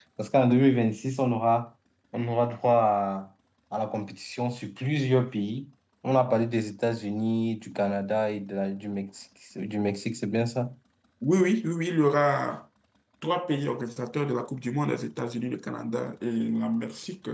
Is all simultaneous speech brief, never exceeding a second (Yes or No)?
Yes